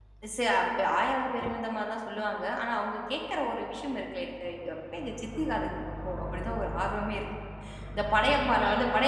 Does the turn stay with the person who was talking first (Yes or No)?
Yes